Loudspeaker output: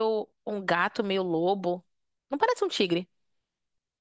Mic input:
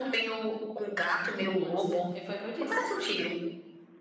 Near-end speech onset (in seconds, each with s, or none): 1.6 s